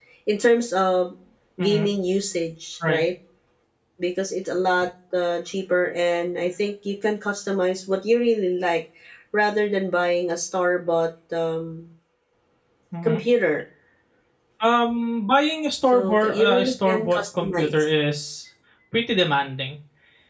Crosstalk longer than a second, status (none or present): present